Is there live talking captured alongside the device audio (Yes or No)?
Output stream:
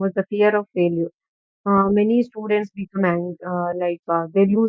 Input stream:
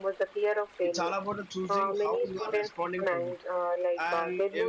Yes